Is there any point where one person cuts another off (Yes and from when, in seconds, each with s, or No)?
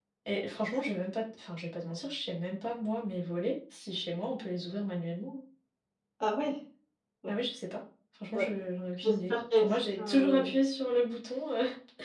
Yes, from 9.0 s